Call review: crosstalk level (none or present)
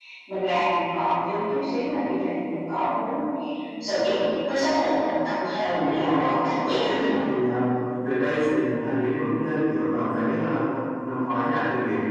present